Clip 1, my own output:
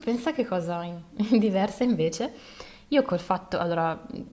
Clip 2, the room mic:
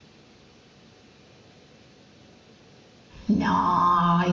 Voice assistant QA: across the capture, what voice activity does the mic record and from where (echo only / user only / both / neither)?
user only